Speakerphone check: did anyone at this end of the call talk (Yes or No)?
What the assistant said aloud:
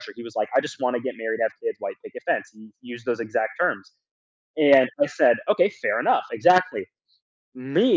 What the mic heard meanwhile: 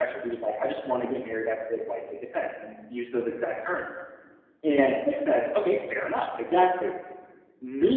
No